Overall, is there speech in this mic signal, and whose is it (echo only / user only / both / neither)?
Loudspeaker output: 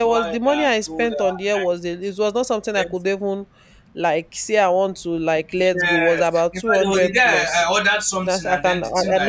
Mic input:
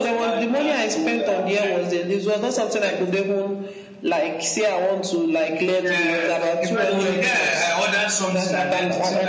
echo only